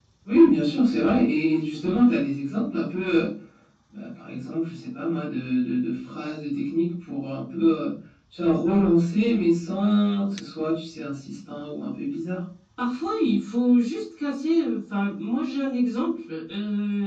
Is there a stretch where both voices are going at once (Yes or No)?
No